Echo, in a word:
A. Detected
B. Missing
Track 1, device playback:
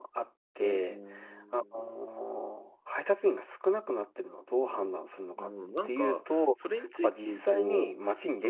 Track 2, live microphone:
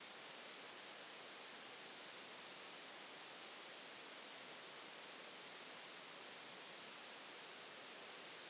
B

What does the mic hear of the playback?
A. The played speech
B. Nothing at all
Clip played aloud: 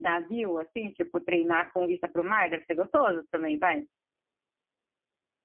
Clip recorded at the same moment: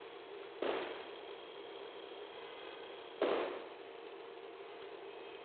B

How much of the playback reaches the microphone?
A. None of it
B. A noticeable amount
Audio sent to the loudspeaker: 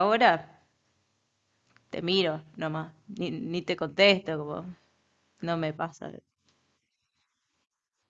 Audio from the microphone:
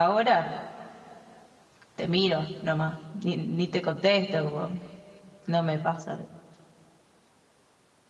B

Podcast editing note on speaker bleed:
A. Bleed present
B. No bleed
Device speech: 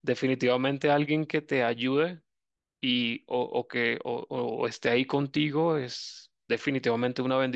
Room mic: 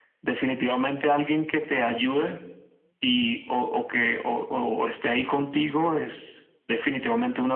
A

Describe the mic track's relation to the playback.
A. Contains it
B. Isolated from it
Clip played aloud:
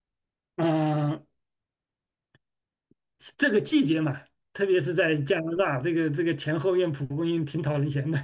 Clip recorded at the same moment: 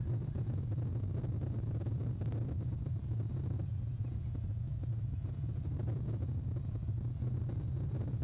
B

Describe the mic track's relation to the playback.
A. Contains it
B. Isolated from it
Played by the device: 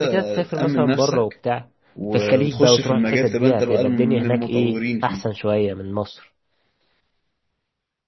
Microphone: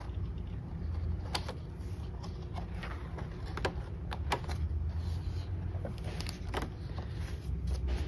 B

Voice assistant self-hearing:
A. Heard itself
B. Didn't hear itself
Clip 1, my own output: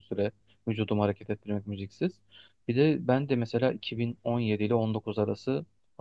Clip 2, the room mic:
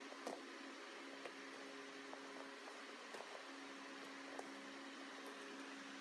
B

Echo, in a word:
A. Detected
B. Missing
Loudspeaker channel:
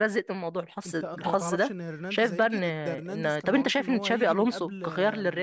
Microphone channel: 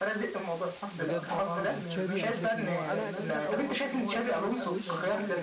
A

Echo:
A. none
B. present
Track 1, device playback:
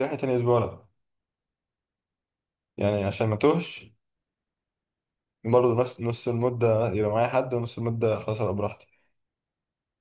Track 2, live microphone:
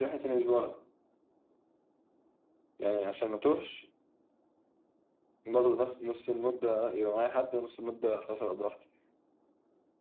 B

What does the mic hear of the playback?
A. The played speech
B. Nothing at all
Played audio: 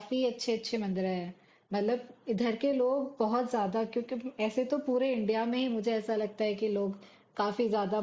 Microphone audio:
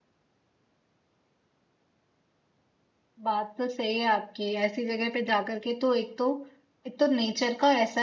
B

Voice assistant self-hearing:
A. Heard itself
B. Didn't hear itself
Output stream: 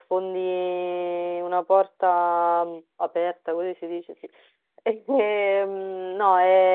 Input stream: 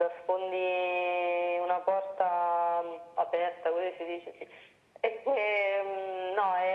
A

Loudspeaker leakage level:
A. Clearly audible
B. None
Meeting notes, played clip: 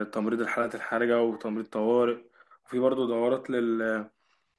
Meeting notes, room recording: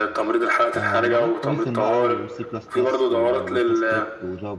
A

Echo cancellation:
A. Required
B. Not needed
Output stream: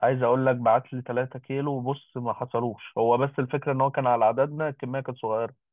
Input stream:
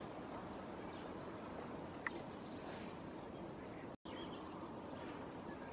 B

